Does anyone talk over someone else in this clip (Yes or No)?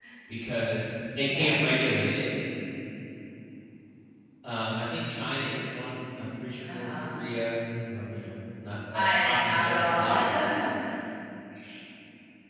Yes